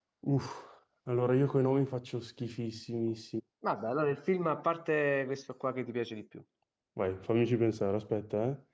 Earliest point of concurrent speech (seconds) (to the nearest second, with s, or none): none